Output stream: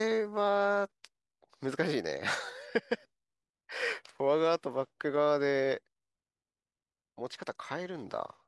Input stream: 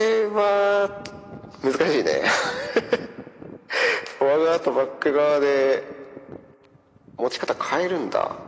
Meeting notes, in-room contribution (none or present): none